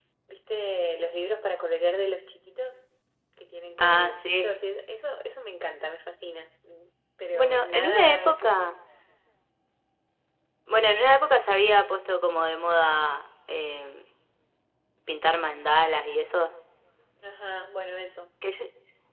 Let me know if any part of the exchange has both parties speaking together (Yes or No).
Yes